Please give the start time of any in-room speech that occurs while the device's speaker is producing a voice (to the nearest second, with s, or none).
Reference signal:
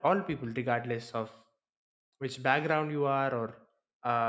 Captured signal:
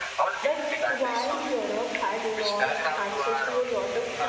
0 s